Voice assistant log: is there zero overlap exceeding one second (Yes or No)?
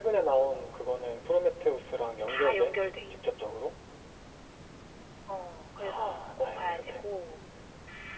No